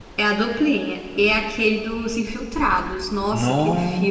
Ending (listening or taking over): taking over